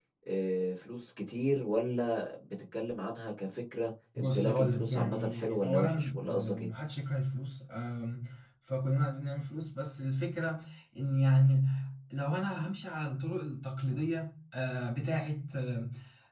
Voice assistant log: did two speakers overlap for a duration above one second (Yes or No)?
Yes